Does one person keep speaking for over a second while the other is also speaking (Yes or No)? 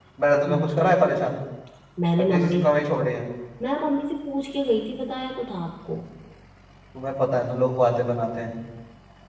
No